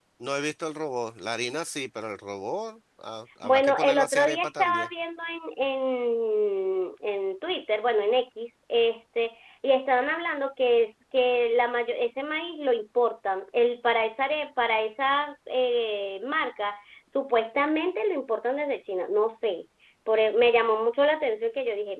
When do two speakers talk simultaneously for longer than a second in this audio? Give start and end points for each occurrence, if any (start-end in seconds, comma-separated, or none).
3.4-4.9